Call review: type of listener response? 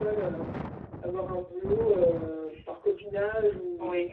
taking over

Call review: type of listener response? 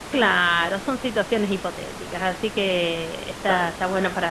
listening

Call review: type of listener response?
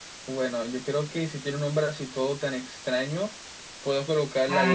taking over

